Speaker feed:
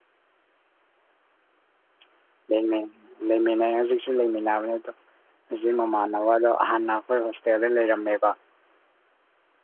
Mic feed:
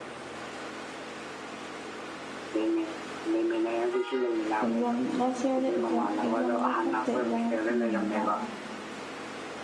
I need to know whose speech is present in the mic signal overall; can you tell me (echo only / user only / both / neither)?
both